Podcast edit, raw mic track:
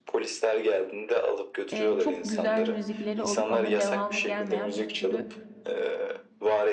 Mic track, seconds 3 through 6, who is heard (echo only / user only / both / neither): both